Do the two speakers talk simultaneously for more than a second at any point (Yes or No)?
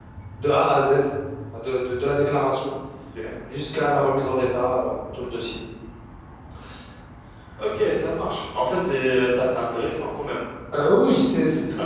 No